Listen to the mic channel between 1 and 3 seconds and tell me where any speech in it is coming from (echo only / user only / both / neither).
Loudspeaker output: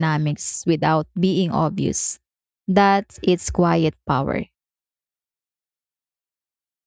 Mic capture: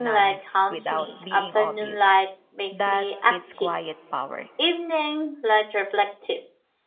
both